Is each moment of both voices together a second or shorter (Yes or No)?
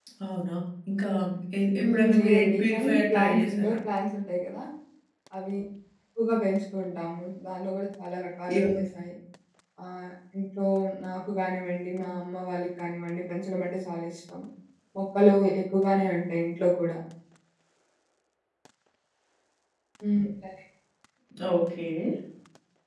No